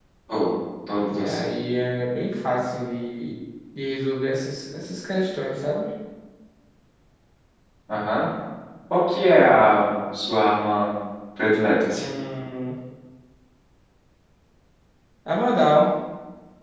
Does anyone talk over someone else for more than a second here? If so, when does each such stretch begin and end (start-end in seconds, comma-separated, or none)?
none